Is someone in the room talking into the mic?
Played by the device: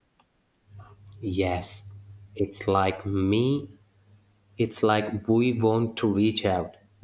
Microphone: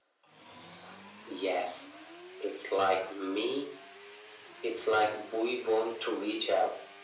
No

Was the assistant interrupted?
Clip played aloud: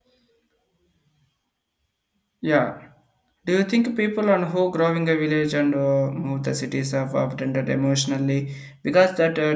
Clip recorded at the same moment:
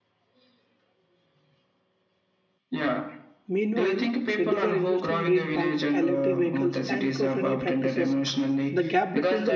Yes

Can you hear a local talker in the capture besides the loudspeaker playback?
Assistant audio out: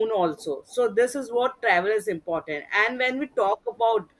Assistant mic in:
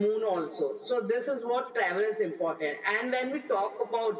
No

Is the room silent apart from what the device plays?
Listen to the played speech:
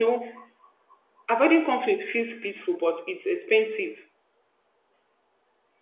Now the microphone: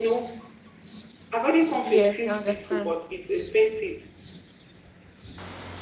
No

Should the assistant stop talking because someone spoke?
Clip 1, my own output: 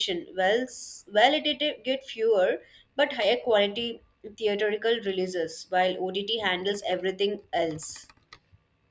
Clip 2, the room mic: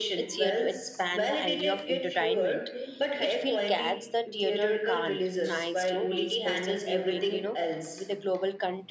Yes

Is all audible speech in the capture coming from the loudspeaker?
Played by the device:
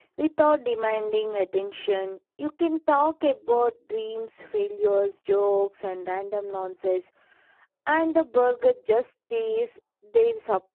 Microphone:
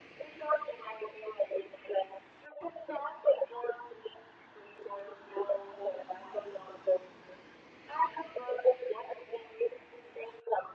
Yes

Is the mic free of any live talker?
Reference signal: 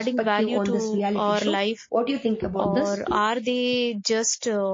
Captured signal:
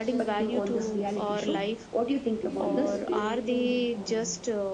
No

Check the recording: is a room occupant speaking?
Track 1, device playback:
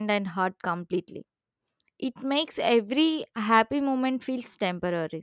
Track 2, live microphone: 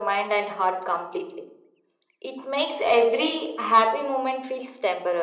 No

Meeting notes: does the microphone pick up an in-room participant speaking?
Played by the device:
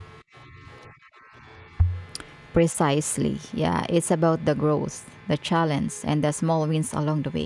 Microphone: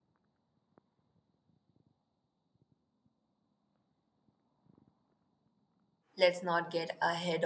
Yes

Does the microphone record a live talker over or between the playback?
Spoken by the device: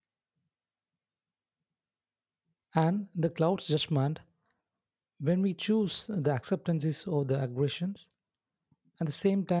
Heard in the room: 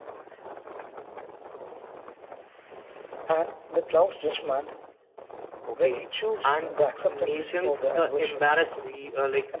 Yes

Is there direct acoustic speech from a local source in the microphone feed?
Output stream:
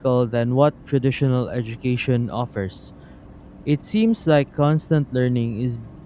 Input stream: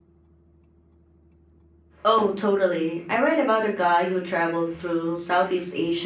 Yes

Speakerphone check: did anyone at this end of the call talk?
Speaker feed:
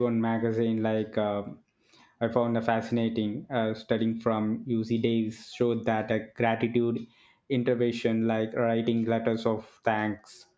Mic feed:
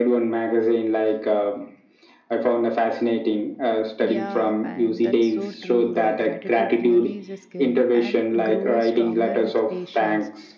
Yes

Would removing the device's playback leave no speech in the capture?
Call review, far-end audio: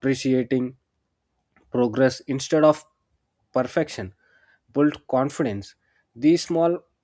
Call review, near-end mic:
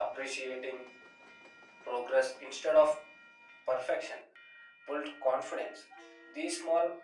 Yes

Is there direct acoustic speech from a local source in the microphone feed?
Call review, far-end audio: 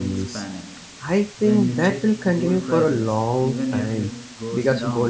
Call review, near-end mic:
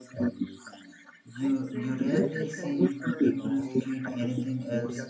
Yes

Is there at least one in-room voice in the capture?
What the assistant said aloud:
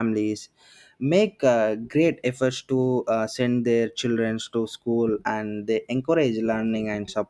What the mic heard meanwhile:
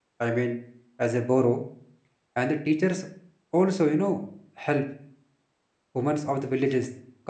Yes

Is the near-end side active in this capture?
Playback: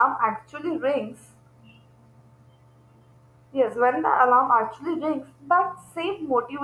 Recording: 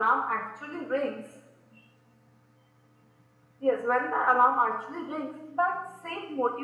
No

